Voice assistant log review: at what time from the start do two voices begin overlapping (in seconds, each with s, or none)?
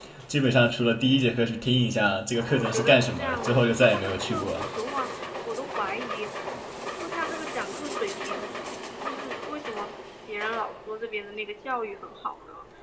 2.6 s